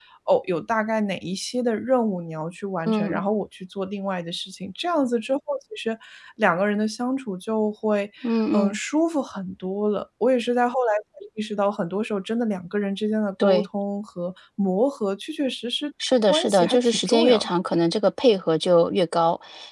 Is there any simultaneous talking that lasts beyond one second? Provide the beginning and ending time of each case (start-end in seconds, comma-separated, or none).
16.3-17.5